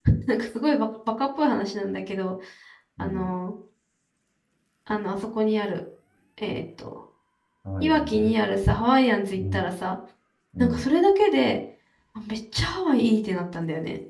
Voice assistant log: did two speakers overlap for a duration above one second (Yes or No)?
No